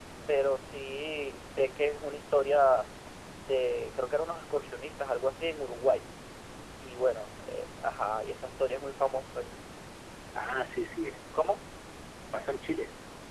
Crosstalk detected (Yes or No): No